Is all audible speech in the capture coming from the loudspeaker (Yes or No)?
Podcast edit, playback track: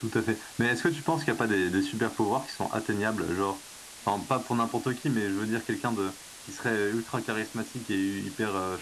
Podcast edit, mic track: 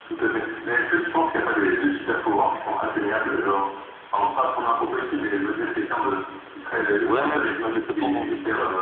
No